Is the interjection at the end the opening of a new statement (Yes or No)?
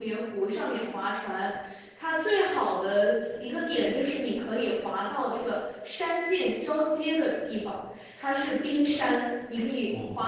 No